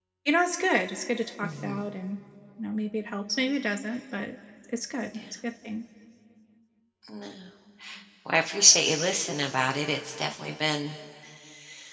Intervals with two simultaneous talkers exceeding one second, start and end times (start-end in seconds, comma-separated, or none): none